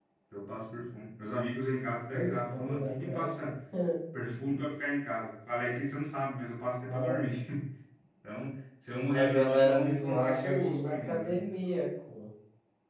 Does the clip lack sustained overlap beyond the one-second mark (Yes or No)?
No